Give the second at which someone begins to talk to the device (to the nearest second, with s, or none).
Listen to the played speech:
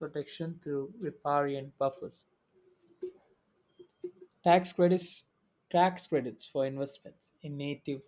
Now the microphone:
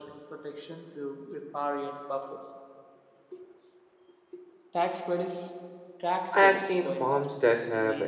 6 s